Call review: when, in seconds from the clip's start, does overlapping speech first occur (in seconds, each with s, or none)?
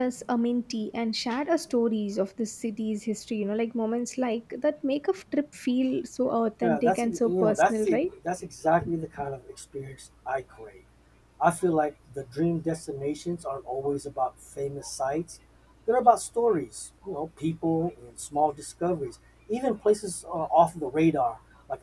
6.6 s